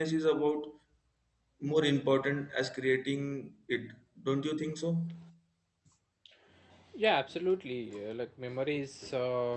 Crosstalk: none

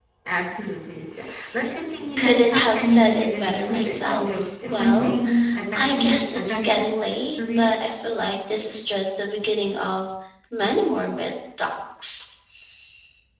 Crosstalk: present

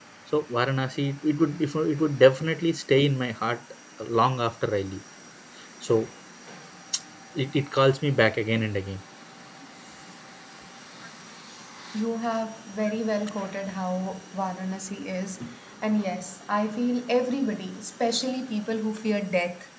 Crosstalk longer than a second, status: none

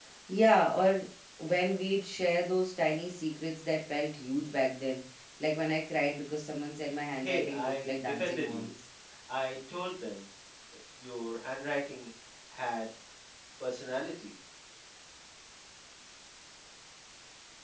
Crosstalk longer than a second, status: present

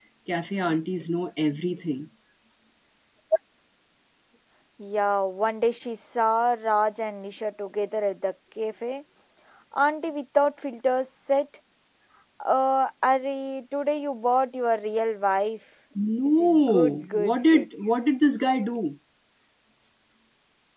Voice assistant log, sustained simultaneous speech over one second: present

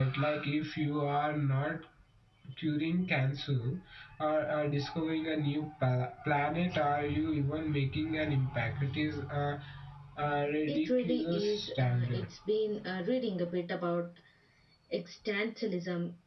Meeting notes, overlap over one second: present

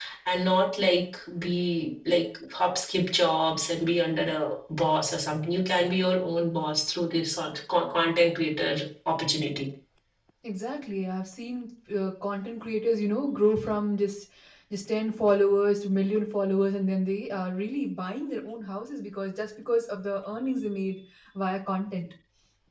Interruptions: none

